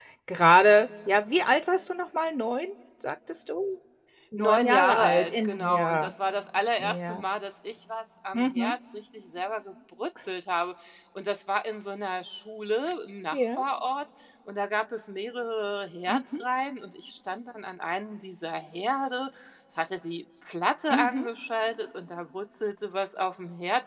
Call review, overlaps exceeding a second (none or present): present